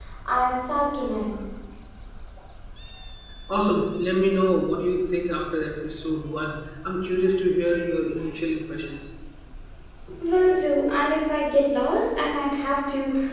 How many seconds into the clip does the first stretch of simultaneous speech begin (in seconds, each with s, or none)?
none